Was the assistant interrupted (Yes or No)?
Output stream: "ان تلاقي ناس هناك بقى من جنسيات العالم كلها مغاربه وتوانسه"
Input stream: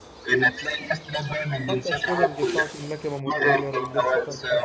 Yes